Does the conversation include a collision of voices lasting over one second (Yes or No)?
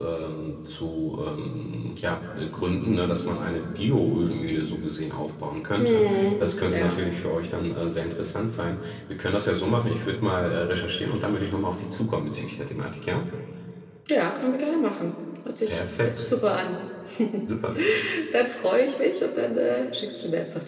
Yes